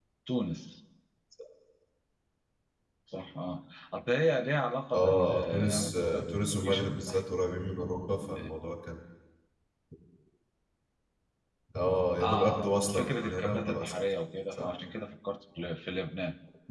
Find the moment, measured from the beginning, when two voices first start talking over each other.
5 s

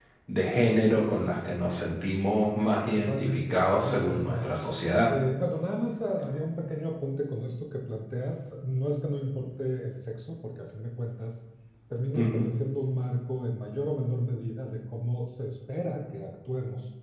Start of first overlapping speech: 3 s

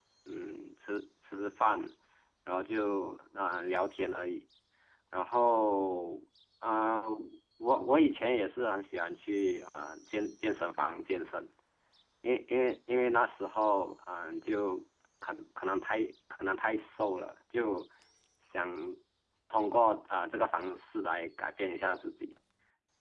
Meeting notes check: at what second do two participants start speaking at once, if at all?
none

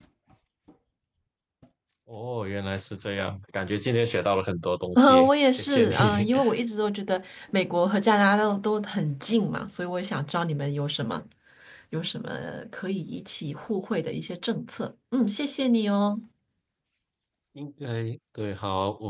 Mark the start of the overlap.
5 s

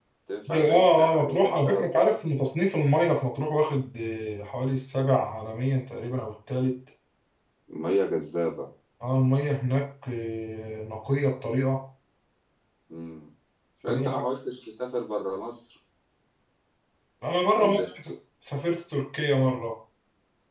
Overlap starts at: 1 s

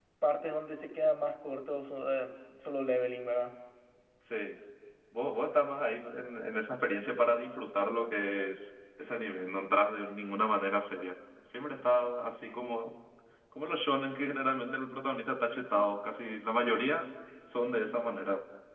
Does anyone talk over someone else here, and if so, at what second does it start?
none

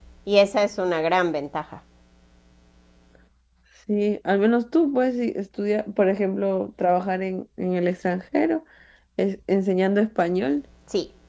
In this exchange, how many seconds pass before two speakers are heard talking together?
none

